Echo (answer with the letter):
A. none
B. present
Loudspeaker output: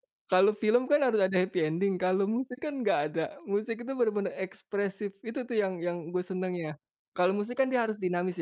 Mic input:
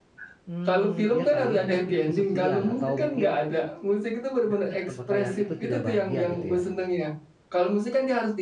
B